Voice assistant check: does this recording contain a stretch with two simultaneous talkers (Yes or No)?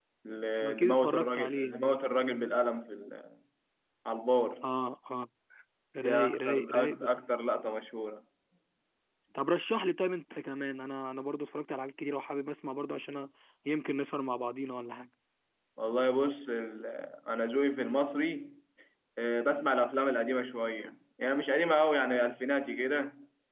Yes